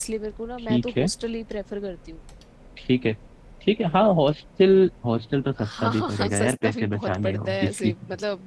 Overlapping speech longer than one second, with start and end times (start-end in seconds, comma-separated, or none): 5.6-7.9